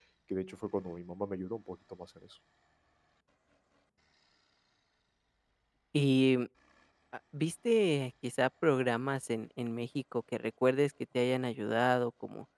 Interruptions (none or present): none